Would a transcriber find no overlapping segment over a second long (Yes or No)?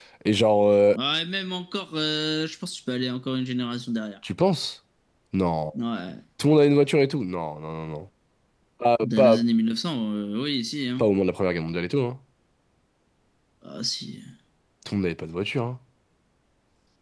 Yes